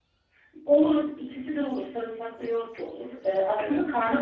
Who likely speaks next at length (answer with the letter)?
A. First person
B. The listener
A